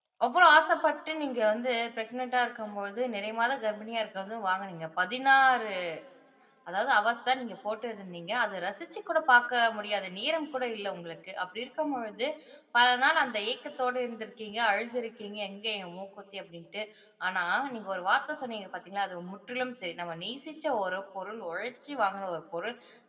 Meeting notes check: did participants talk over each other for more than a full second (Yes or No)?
No